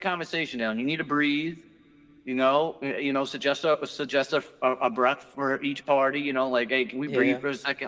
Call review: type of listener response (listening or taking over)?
listening